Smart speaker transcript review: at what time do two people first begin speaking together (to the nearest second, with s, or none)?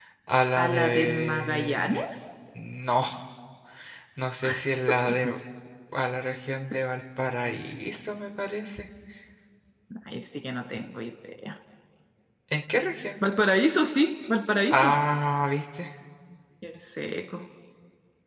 1 s